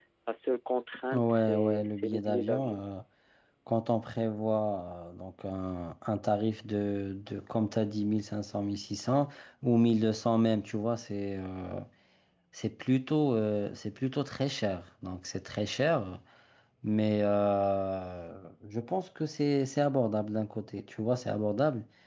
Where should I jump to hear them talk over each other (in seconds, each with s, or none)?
1.1 s